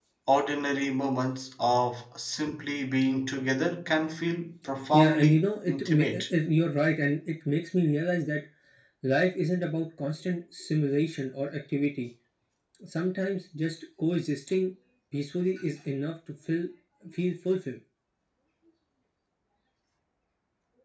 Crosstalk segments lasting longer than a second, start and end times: 4.9-6.2

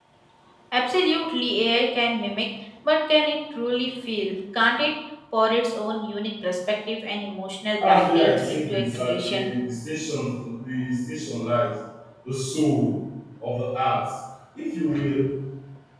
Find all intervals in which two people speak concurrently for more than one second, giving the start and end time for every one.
7.9-9.5

